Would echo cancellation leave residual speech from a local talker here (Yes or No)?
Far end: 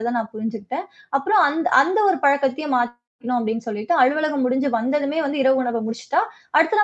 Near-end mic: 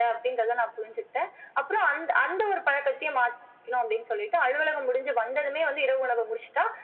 No